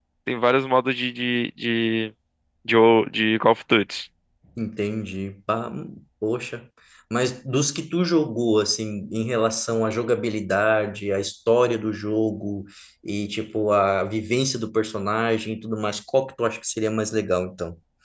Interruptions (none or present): none